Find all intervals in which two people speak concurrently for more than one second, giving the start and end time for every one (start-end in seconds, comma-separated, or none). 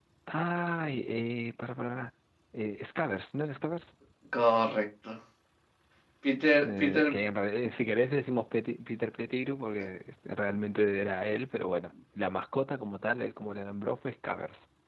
none